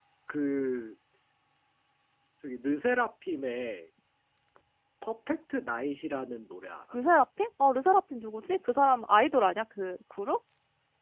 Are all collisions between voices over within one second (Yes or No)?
Yes